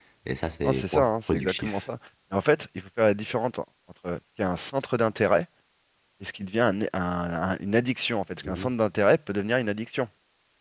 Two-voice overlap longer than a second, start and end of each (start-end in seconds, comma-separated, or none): 0.6-1.8